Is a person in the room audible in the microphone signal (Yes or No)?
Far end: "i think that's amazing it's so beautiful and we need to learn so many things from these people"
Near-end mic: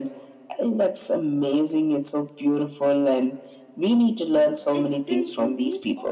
Yes